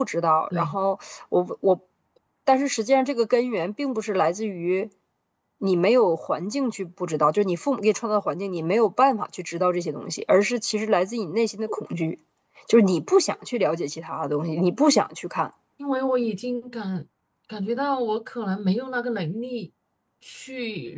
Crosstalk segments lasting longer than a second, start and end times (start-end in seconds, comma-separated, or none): none